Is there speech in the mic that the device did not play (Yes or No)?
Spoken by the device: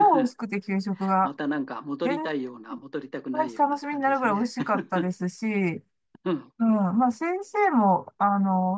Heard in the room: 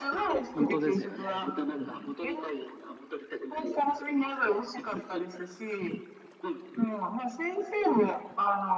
Yes